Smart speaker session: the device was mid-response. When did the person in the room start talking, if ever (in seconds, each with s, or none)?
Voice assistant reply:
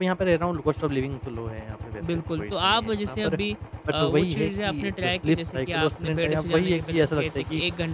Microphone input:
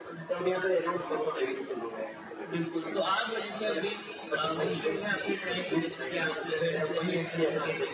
none